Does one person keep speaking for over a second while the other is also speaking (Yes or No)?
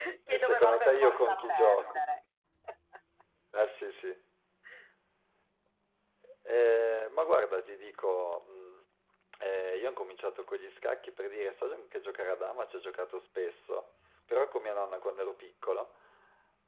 Yes